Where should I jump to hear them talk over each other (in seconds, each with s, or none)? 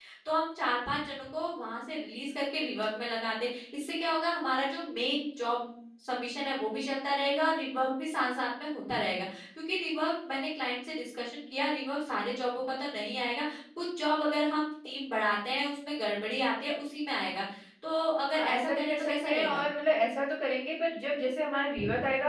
18.4 s